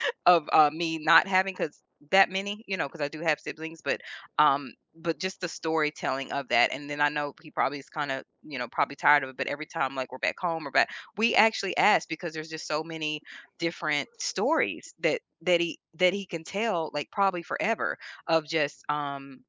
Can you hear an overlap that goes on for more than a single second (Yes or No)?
No